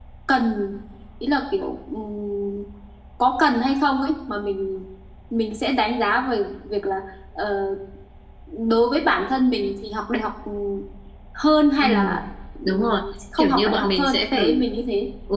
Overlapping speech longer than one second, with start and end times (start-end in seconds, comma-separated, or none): 13.4-14.7